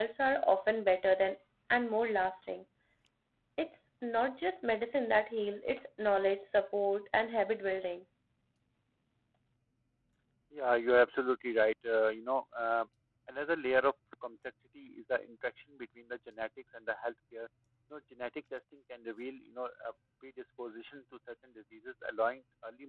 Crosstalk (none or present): none